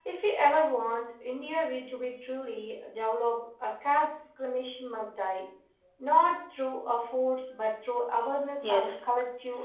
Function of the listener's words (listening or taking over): taking over